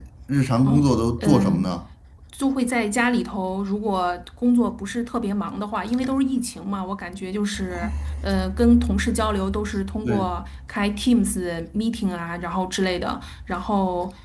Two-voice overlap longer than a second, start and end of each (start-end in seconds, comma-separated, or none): none